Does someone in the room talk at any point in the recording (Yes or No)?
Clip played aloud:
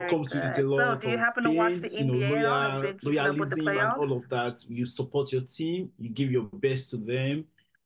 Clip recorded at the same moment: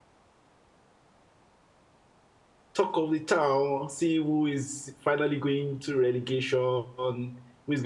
Yes